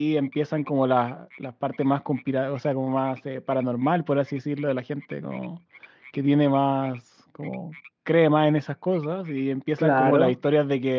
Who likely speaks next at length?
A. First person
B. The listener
A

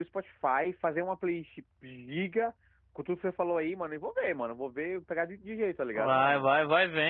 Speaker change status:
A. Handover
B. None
A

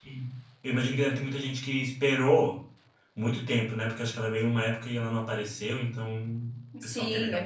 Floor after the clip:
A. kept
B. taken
B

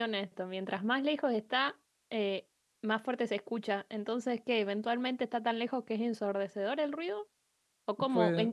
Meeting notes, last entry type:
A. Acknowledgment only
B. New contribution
A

